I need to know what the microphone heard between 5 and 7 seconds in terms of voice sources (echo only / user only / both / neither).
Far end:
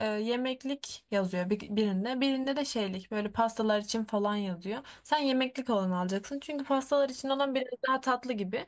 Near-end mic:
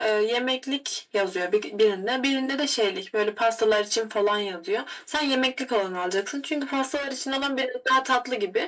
echo only